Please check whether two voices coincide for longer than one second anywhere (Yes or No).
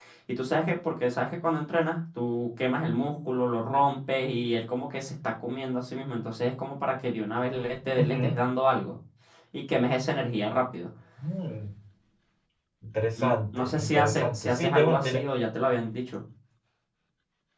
Yes